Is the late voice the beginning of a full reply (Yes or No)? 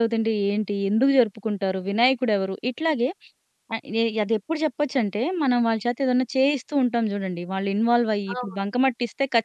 No